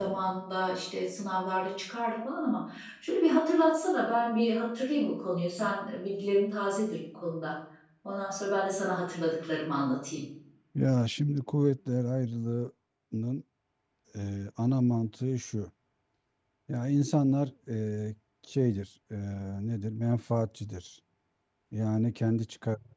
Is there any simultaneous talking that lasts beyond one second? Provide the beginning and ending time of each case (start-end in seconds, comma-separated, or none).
none